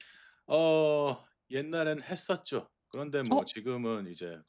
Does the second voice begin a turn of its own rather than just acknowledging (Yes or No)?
No